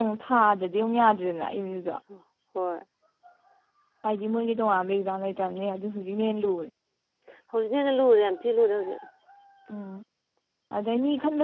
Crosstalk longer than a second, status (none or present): none